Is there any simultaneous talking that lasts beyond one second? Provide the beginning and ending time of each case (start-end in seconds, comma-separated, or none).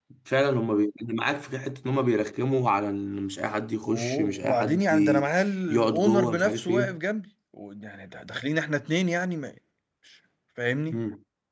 3.8-5.3, 5.7-7.0